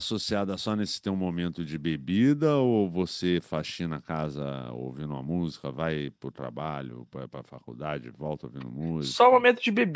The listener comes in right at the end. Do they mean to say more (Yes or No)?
Yes